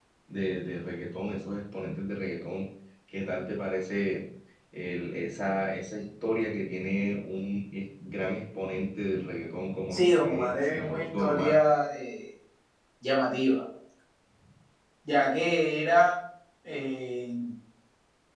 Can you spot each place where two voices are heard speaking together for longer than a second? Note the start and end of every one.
9.9-11.6

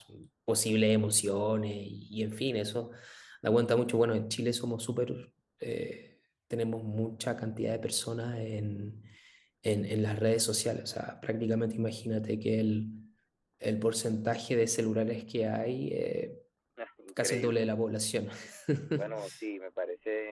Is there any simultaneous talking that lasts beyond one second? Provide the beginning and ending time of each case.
none

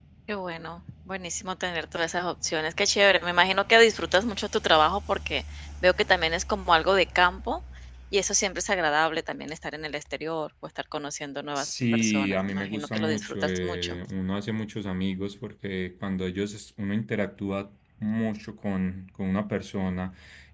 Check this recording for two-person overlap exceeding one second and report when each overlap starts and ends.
11.6-14.0

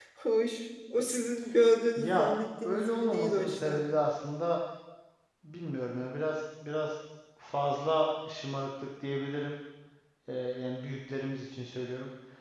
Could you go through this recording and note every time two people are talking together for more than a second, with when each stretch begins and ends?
2.0-3.8

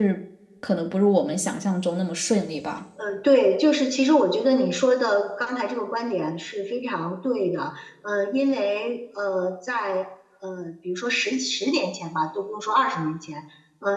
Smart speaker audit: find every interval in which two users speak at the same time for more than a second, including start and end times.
none

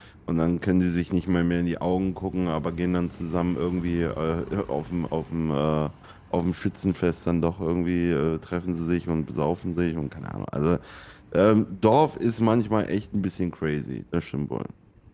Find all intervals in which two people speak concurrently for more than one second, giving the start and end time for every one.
none

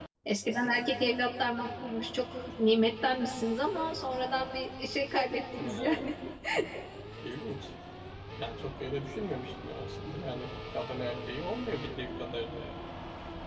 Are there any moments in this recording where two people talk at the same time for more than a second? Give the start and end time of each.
none

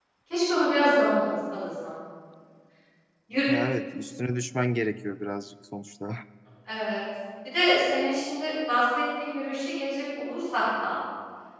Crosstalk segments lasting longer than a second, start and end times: none

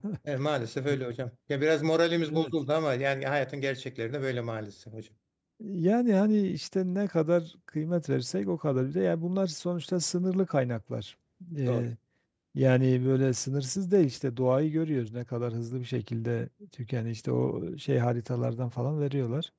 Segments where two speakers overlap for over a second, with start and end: none

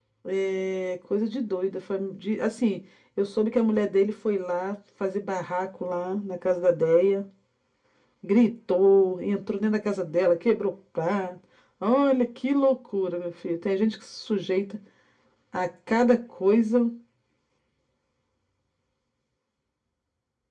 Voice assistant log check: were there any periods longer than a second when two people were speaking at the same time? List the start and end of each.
none

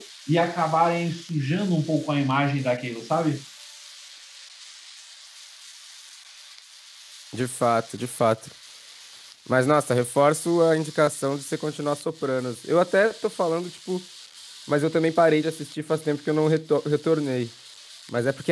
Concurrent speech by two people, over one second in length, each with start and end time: none

